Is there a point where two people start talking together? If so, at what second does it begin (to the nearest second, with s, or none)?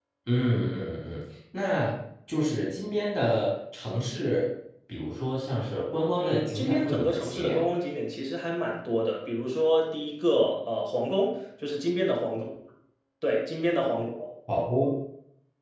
6 s